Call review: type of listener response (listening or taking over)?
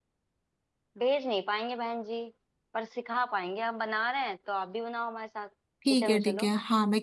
taking over